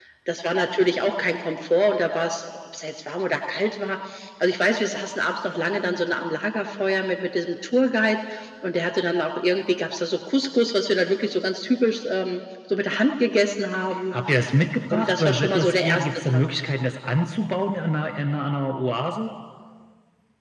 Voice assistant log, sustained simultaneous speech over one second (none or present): present